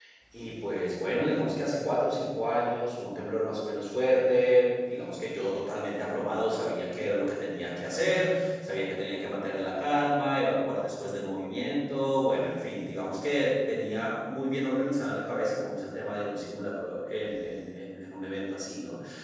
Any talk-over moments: No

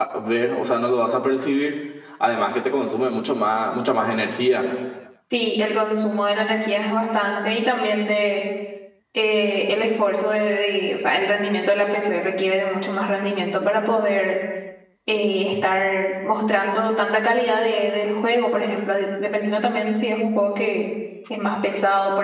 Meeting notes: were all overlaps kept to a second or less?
Yes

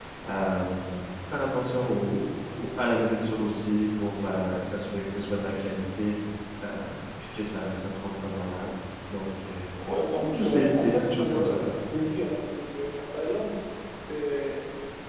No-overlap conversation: No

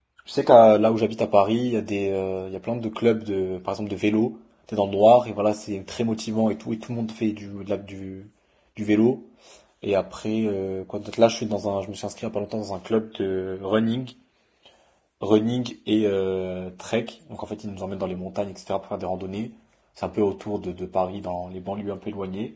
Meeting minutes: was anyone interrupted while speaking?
No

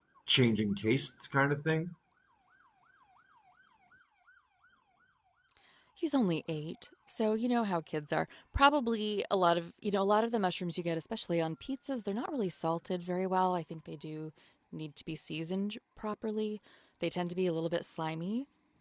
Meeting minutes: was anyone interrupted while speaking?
No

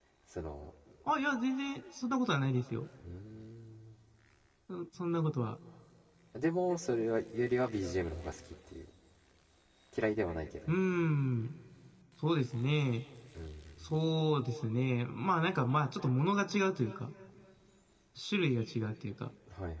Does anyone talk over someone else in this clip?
No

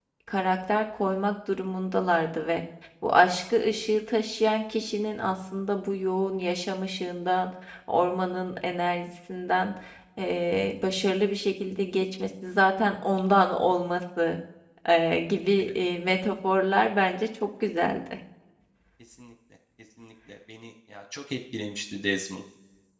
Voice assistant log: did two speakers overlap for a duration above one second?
No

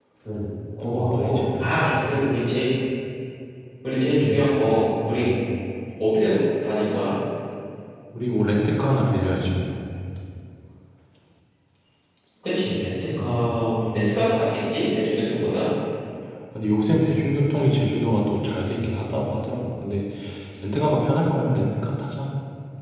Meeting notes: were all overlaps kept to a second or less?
No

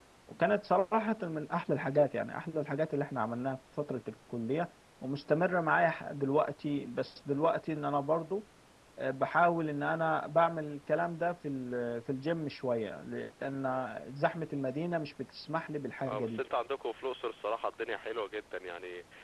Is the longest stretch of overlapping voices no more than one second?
Yes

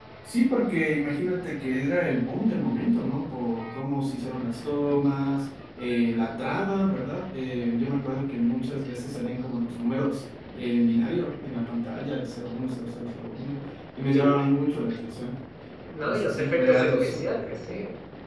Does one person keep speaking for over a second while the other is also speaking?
Yes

